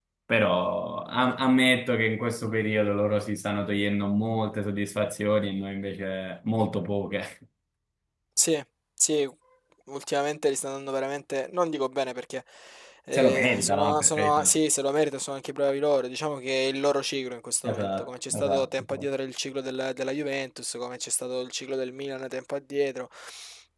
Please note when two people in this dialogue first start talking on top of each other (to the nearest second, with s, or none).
13 s